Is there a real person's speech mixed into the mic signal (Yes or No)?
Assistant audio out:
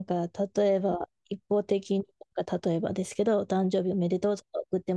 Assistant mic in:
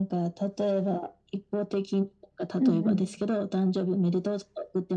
Yes